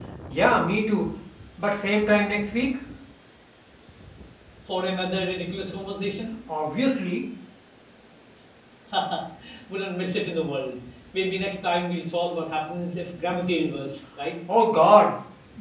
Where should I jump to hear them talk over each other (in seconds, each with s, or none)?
none